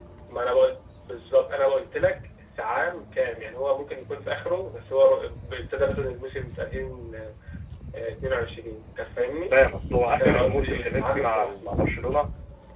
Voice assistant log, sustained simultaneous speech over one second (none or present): present